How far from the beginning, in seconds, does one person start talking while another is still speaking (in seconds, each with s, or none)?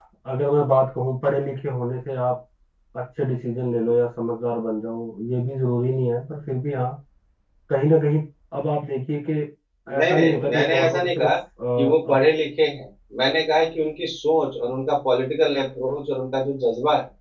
10.0 s